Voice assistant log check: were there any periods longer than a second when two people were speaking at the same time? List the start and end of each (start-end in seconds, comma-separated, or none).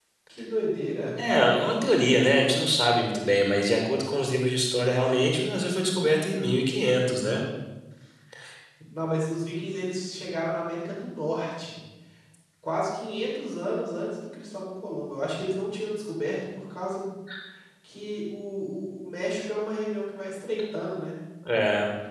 none